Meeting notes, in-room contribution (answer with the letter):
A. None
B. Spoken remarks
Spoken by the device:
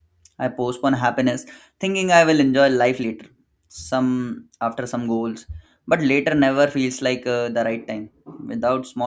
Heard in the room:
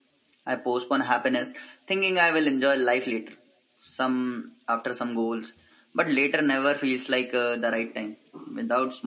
A